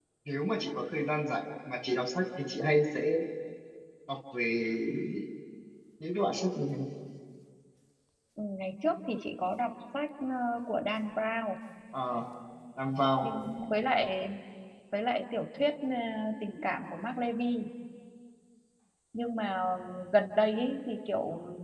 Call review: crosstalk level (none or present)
none